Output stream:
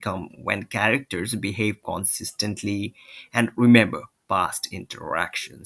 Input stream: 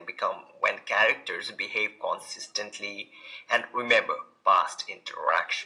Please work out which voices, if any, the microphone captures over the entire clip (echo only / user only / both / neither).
echo only